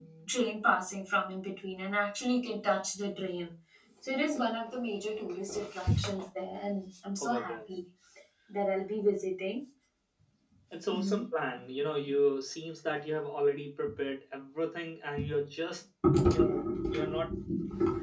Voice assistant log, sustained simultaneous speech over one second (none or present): none